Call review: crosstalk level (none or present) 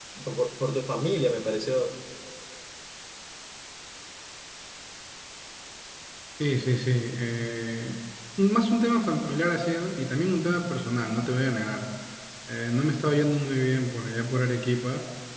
none